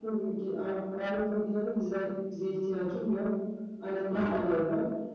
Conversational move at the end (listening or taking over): listening